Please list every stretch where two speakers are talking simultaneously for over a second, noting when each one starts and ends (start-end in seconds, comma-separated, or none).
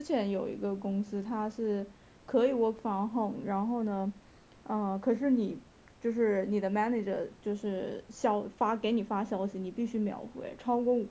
none